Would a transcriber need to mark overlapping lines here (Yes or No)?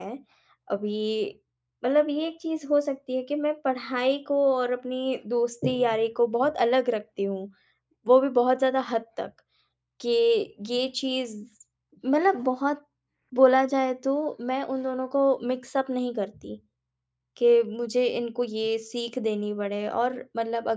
No